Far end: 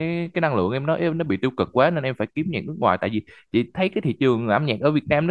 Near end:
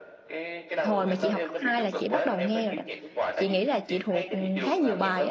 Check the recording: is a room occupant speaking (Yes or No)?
Yes